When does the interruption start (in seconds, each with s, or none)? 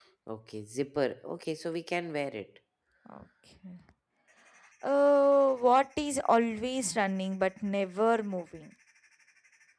none